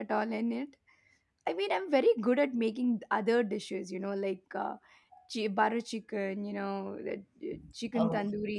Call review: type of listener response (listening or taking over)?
listening